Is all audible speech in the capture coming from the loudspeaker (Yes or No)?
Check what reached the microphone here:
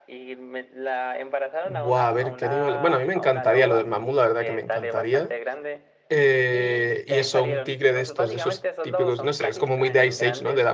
No